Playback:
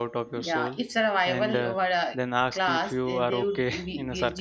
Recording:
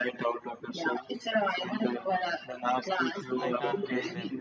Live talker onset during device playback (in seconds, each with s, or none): 3.4 s